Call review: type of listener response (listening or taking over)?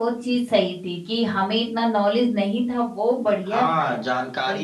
taking over